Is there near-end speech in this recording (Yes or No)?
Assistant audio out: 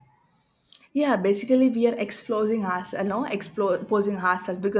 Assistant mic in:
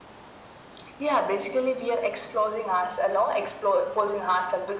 No